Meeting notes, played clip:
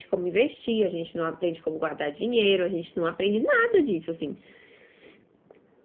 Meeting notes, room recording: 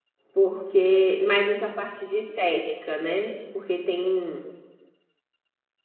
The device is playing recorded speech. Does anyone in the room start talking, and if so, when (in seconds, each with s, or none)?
0.3 s